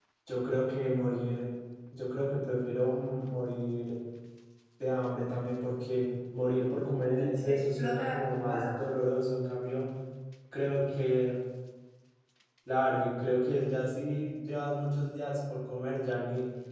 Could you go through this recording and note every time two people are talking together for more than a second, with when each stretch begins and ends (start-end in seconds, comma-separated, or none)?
7.2-8.8